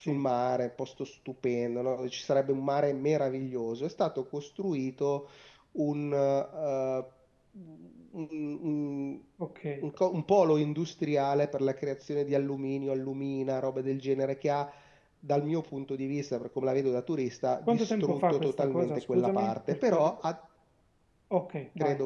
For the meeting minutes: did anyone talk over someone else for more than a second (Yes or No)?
Yes